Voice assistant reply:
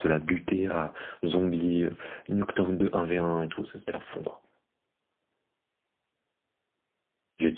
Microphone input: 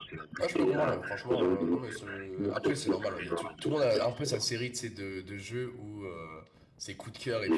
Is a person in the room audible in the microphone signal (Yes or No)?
Yes